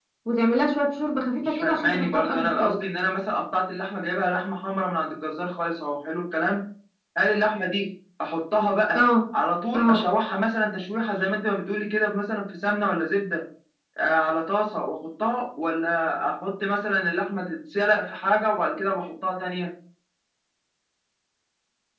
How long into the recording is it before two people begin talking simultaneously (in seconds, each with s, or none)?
1.4 s